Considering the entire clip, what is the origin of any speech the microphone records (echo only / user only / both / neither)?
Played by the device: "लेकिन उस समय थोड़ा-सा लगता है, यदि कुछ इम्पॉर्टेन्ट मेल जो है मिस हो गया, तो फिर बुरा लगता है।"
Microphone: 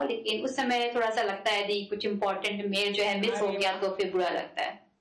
both